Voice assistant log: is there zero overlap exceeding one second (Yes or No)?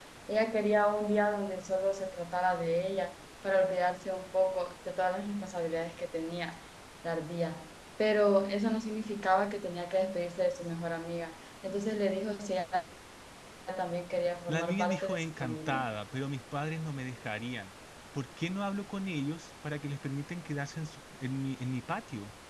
No